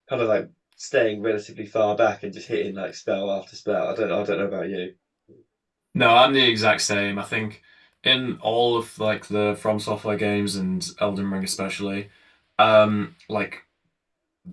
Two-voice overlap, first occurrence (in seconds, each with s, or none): none